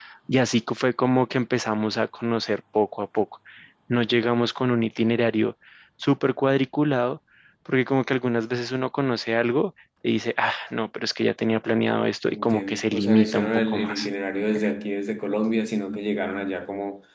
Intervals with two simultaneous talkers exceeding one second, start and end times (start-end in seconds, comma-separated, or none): 12.2-14.0